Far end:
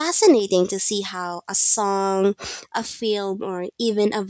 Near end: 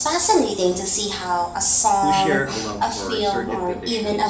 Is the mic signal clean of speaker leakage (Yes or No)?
No